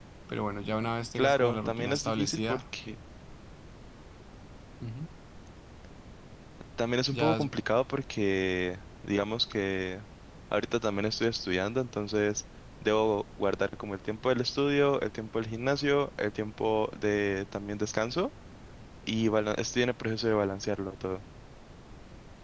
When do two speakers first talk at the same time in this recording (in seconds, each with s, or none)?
1.2 s